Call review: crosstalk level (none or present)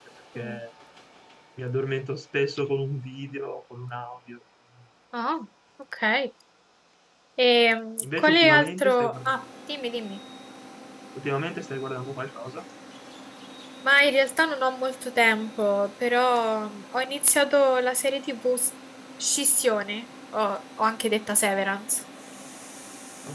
present